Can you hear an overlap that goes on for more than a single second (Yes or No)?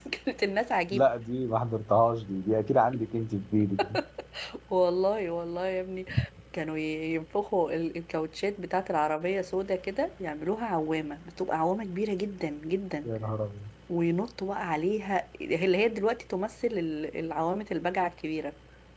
No